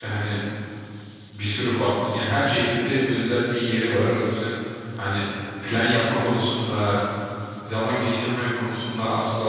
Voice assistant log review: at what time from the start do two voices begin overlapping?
none

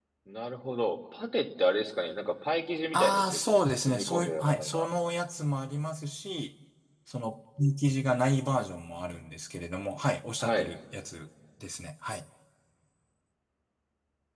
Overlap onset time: 2.9 s

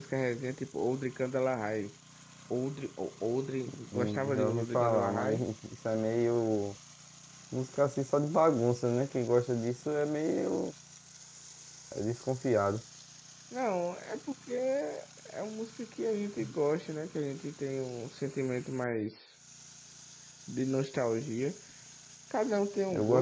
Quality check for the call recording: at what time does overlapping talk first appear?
3.9 s

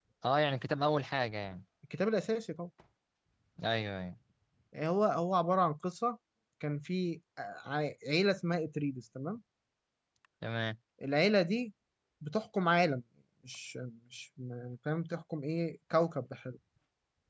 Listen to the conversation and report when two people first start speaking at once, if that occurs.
none

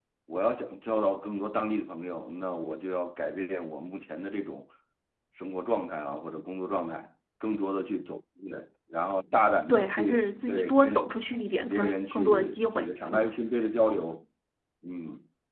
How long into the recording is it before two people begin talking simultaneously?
9.7 s

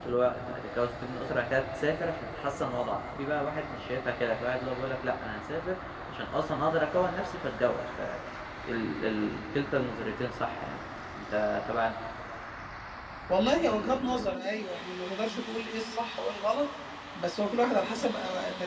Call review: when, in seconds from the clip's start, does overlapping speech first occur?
none

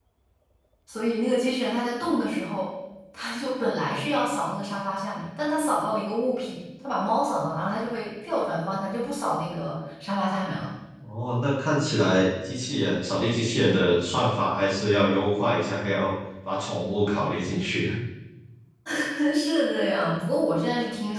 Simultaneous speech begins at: none

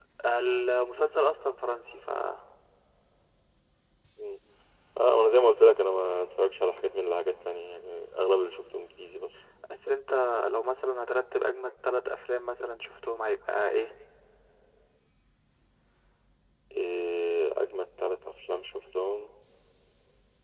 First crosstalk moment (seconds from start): none

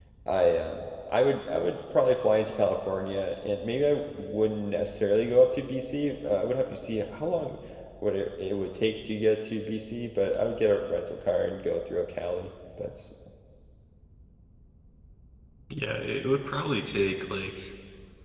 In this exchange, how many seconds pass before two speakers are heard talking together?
none

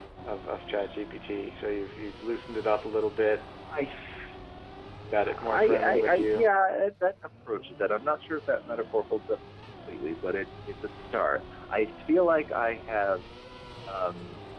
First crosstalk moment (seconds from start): 5.2 s

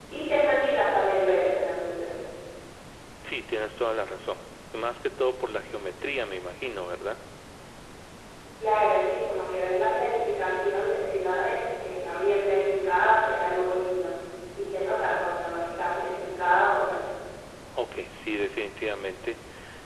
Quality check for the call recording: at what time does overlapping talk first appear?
none

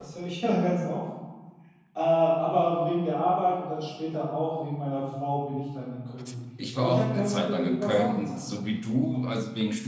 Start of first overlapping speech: 6.6 s

